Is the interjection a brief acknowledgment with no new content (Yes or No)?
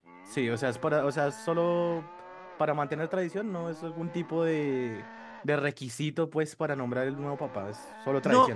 No